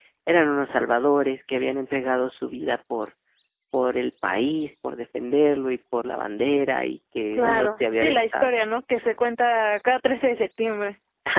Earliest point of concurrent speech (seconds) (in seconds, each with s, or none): 7.3 s